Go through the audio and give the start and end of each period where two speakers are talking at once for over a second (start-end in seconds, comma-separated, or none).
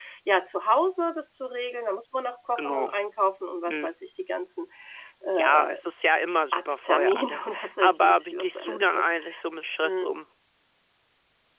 6.5-9.1